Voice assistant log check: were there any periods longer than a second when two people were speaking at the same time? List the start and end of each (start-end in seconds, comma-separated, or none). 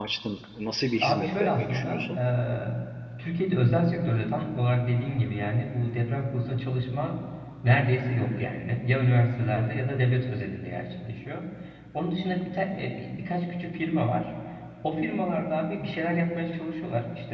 0.9-2.1